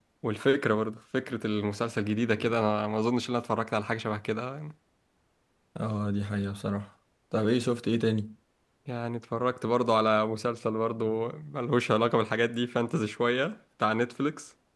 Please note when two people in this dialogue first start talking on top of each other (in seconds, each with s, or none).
none